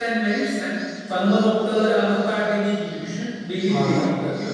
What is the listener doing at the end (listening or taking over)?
listening